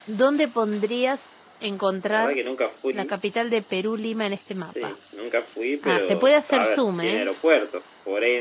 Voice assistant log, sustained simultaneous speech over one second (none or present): present